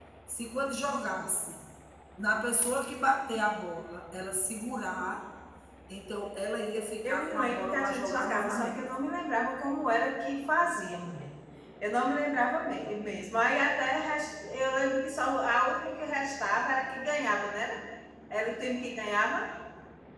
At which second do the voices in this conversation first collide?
7.0 s

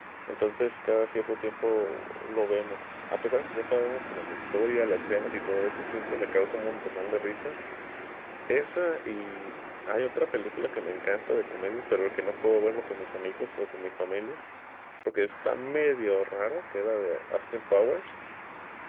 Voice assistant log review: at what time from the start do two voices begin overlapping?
none

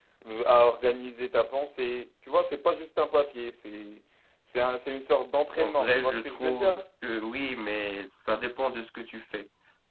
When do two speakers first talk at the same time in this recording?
5.5 s

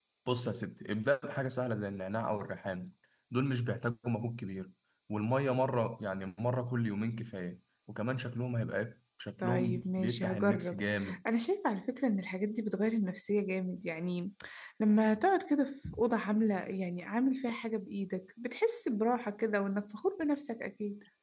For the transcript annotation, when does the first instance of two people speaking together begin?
9.4 s

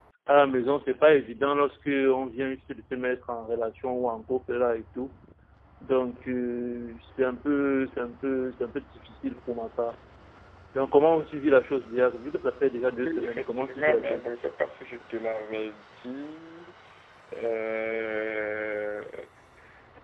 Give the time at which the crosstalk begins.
13.0 s

